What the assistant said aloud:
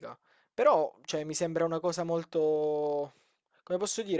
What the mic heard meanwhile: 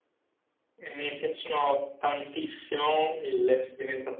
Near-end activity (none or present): present